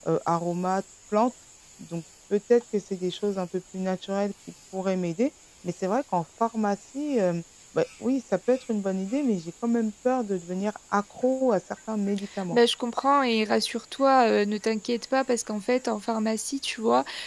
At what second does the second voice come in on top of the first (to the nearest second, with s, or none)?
none